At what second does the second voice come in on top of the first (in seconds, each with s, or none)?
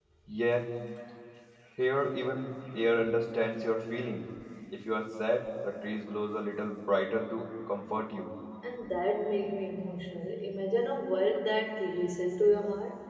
none